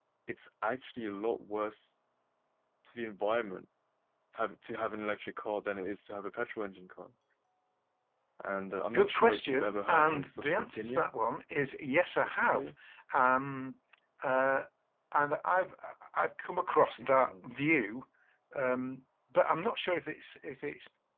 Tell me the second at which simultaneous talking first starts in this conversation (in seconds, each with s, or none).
8.9 s